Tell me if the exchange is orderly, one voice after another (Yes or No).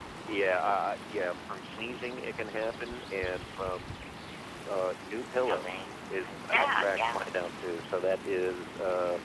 No